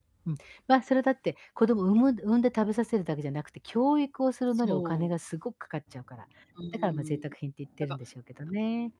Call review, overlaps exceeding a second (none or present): none